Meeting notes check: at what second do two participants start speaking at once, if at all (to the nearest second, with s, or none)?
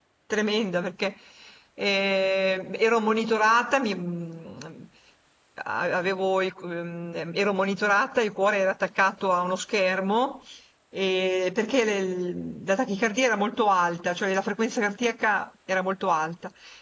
none